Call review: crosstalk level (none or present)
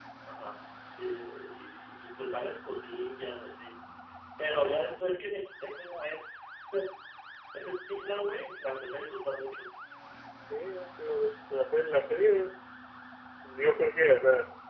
none